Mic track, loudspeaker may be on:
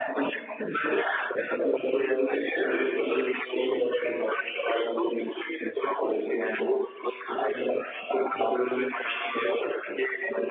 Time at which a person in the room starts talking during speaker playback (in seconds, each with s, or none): none